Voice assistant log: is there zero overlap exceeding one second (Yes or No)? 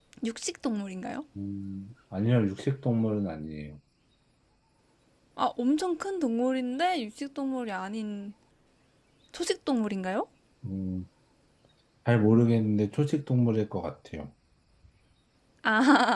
Yes